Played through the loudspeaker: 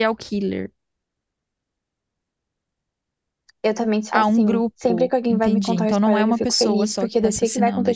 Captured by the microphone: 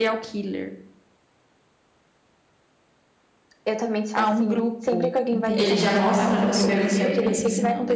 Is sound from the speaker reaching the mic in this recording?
Yes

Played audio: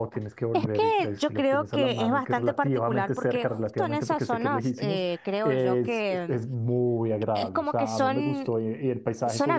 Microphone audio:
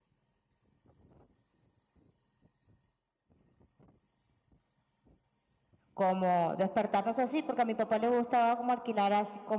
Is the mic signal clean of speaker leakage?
Yes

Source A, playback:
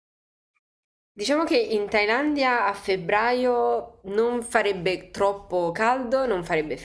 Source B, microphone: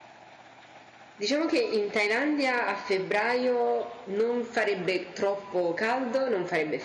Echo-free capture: No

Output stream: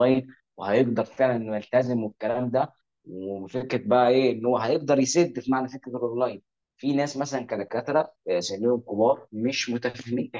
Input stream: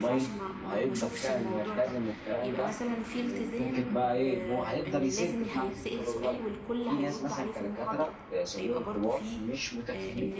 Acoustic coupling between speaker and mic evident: Yes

